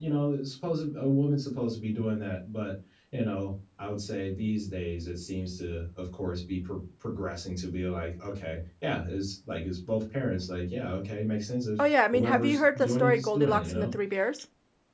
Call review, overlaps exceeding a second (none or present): present